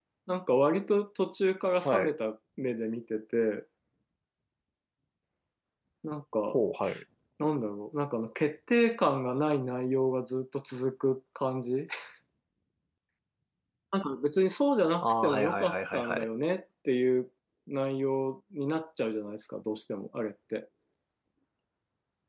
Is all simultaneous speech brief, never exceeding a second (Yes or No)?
No